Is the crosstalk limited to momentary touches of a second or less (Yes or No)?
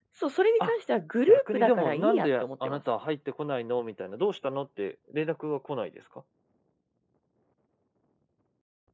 No